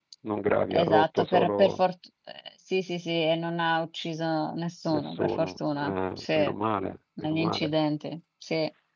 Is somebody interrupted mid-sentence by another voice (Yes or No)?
Yes